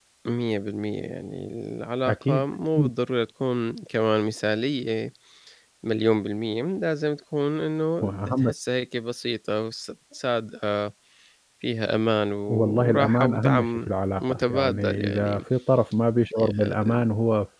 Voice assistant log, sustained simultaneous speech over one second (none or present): present